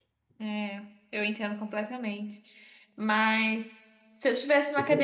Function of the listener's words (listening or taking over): listening